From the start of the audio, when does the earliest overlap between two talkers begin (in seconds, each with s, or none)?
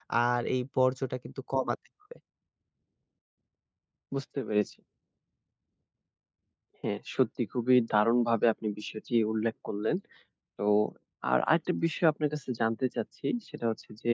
none